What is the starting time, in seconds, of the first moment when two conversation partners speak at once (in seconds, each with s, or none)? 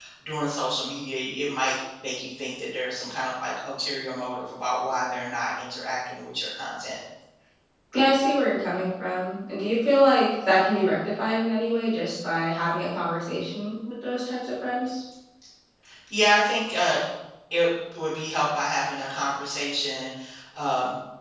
none